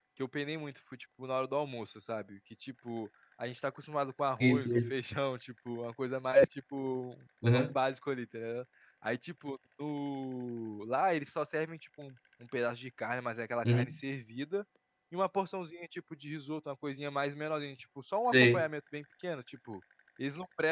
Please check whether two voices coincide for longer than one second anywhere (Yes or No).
No